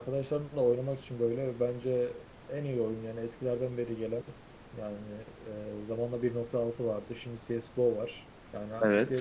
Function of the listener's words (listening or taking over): listening